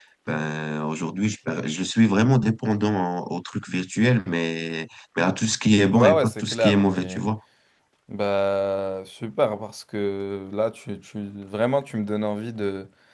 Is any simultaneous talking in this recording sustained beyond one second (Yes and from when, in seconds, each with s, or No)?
Yes, from 5.9 s